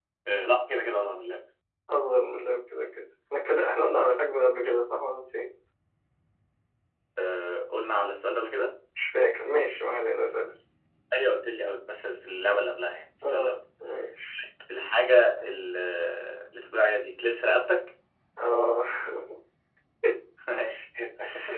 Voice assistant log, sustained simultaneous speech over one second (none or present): none